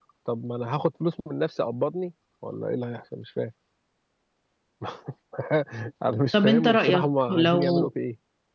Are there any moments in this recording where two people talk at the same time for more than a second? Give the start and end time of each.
6.3-7.9

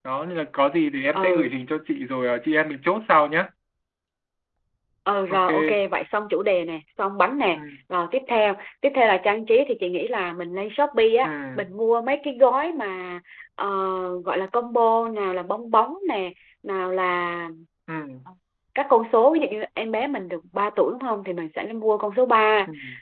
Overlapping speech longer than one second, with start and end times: none

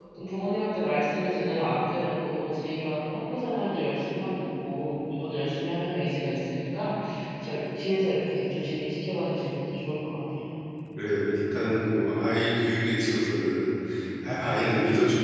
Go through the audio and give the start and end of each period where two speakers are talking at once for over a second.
none

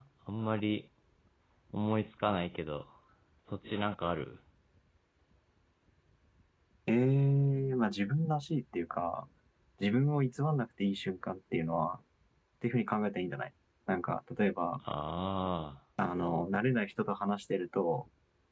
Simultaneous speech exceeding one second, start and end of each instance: none

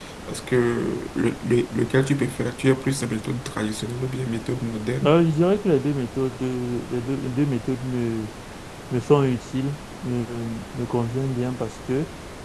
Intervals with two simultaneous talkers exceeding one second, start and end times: none

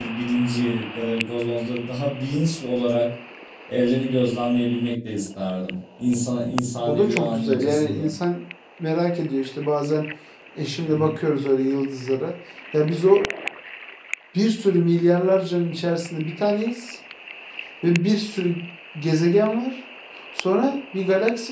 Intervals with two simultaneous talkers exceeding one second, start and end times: 6.9-8.1

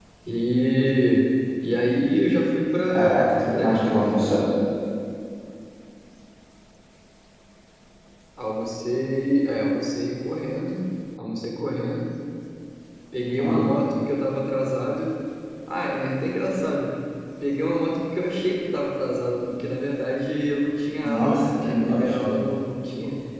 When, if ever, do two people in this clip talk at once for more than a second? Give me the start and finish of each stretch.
2.9-4.3, 21.0-22.3

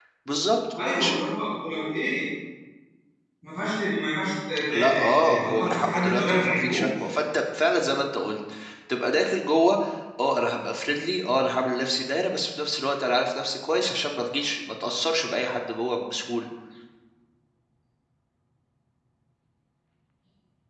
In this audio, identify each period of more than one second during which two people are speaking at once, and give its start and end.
4.7-7.1

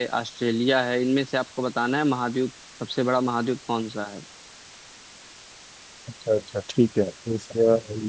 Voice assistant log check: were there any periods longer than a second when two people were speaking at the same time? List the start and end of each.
none

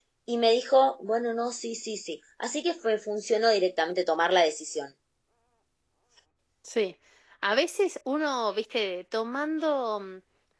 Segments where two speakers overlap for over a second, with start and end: none

